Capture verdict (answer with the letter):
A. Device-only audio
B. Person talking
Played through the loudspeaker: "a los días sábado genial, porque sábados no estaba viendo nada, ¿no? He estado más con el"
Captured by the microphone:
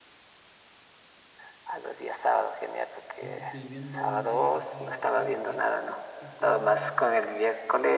B